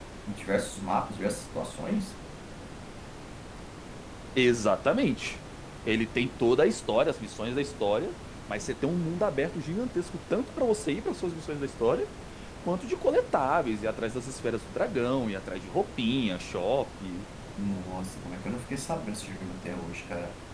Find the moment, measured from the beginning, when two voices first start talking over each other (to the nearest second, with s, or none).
none